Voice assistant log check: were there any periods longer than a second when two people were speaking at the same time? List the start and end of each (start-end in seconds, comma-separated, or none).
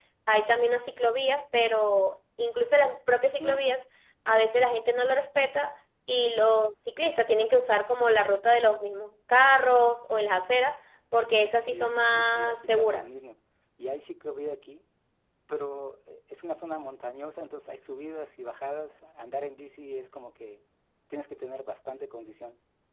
11.6-13.1